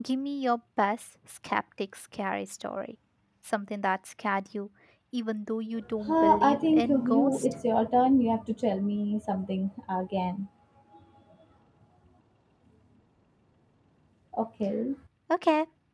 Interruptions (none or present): present